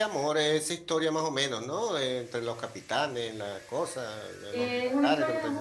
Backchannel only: No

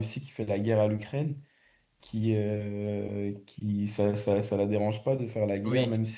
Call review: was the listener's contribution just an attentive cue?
Yes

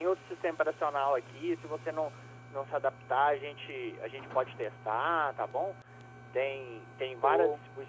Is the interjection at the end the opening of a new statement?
No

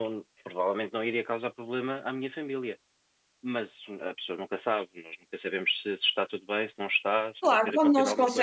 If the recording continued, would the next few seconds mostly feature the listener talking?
Yes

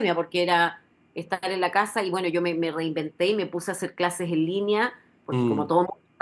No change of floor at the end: Yes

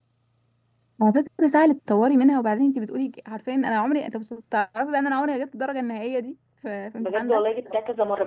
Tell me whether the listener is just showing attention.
No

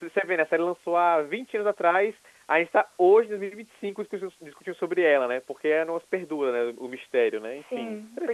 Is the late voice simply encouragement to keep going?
No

